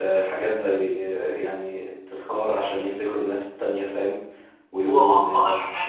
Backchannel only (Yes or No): No